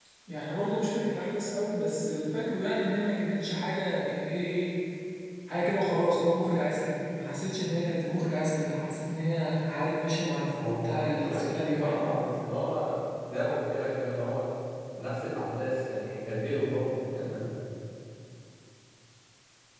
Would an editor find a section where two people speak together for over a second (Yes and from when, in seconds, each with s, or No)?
Yes, from 10.5 s